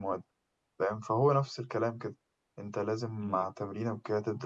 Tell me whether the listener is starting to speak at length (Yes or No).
No